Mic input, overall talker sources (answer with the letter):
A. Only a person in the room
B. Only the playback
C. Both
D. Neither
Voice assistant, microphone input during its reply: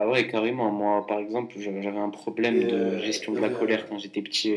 C